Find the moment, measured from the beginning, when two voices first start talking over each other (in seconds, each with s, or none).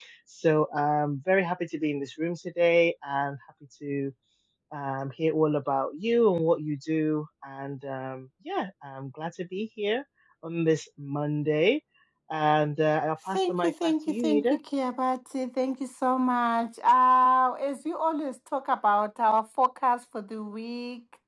13.3 s